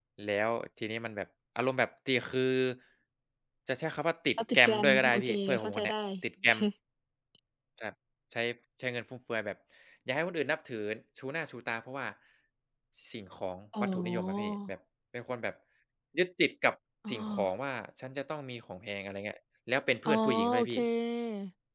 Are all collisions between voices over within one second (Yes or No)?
No